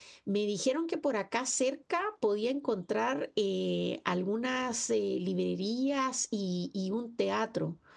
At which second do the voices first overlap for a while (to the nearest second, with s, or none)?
none